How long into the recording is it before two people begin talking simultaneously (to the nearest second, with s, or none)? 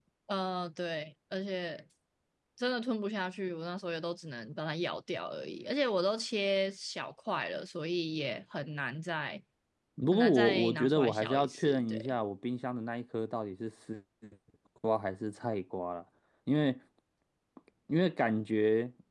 10 s